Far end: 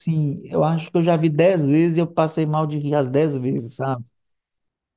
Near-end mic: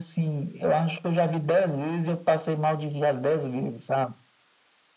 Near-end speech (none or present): none